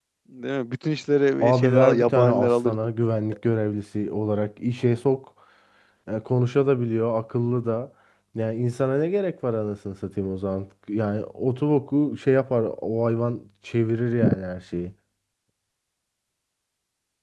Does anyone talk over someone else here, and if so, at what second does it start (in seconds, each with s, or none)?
1.4 s